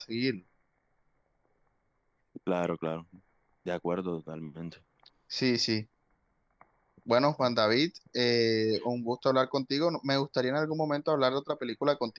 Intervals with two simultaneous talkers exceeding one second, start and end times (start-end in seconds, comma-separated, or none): none